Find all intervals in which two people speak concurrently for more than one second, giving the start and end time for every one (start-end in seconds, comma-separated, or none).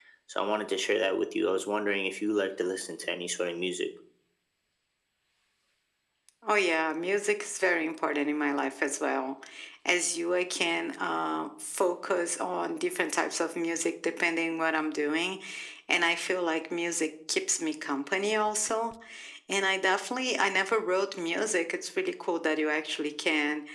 none